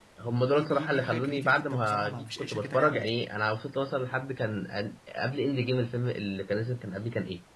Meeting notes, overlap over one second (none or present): present